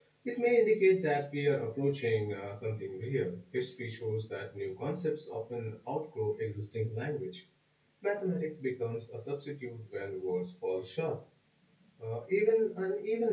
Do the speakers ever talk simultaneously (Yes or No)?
No